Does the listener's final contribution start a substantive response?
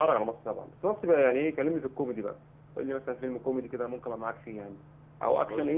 No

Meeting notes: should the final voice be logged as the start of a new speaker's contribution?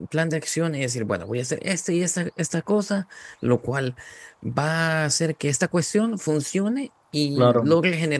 No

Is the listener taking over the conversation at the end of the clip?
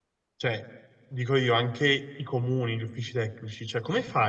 No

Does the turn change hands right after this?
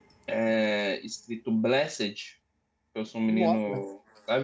No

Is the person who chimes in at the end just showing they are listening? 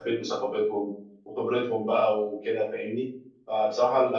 Yes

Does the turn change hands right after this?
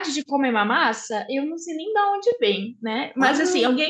No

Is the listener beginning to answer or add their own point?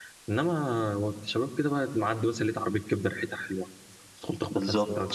Yes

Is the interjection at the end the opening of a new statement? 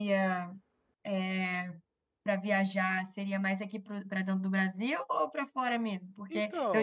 No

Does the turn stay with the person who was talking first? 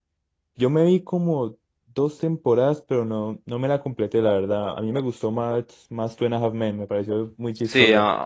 No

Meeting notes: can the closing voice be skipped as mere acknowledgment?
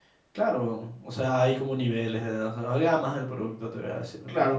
No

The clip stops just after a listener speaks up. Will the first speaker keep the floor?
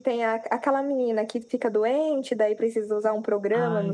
Yes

